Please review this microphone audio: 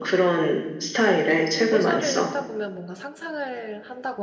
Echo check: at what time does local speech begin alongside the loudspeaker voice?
1.6 s

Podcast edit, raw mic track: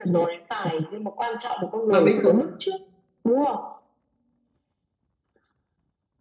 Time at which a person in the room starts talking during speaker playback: 1.9 s

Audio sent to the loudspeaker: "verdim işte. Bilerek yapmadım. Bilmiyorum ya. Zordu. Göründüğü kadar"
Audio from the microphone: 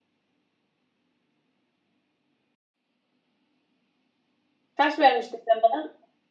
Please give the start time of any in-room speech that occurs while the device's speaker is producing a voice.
4.8 s

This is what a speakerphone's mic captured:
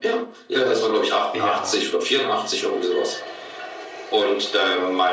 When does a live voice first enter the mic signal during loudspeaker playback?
1.3 s

